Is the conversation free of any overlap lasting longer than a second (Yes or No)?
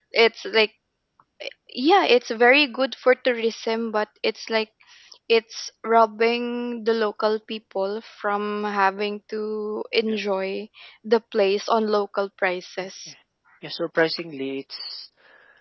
Yes